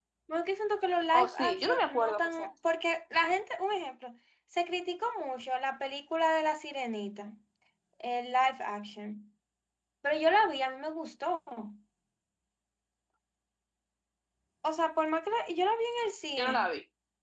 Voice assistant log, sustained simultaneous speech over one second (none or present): present